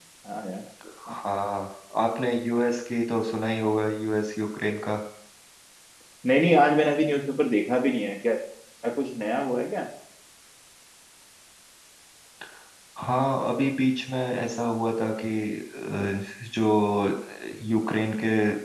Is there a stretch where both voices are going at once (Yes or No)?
No